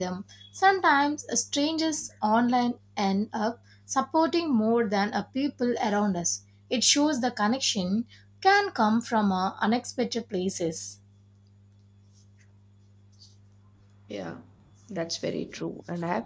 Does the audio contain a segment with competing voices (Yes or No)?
No